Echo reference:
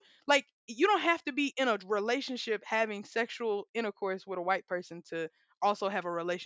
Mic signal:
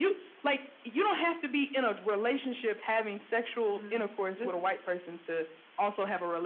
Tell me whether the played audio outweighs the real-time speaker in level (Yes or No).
Yes